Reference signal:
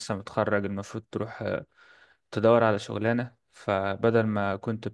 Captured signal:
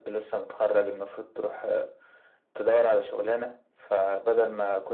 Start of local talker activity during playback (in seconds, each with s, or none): none